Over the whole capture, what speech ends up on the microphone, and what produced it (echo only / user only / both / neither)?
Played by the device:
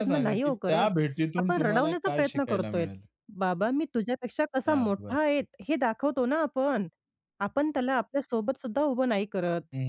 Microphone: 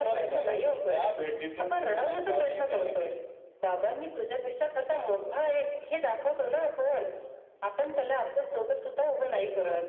echo only